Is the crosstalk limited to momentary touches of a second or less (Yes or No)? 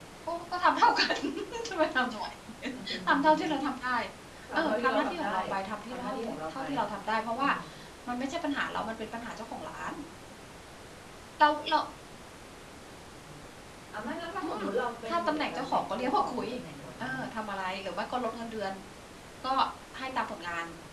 No